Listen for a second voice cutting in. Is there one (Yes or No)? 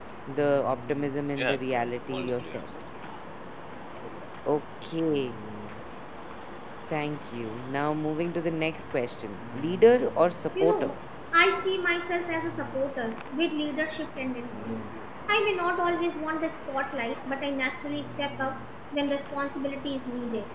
Yes